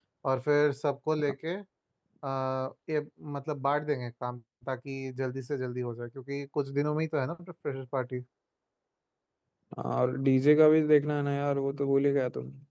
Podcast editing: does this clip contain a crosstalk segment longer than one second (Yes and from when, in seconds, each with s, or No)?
No